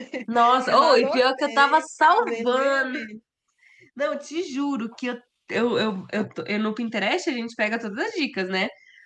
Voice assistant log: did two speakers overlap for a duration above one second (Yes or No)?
Yes